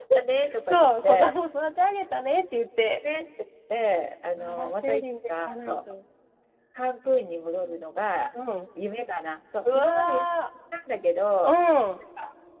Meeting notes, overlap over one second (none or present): present